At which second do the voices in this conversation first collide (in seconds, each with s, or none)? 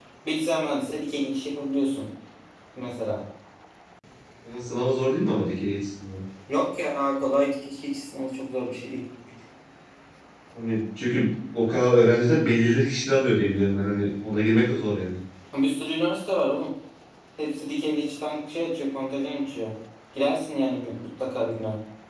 none